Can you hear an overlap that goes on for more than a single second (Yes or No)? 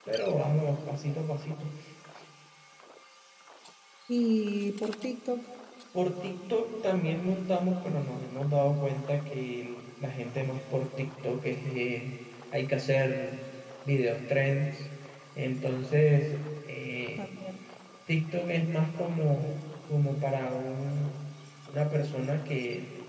No